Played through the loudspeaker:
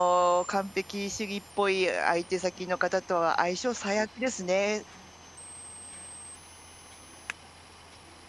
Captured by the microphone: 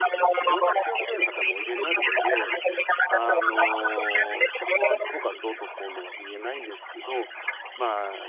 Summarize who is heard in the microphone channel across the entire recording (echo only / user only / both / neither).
both